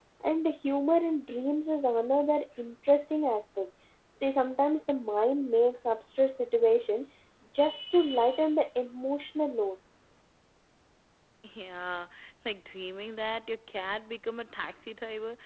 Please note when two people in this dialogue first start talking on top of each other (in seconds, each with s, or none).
none